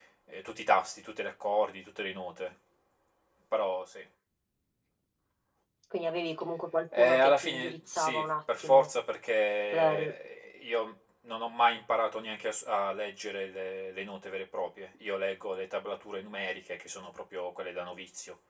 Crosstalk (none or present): present